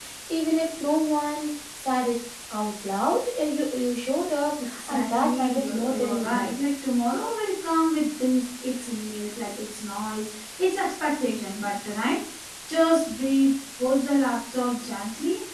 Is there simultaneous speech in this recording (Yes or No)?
Yes